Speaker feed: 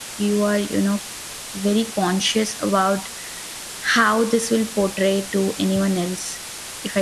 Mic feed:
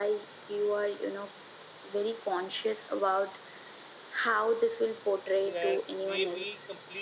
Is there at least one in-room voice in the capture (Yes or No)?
Yes